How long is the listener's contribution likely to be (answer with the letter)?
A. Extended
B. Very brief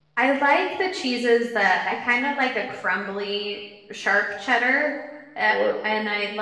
B